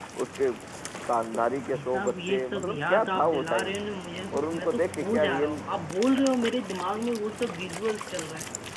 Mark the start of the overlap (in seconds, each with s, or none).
1.6 s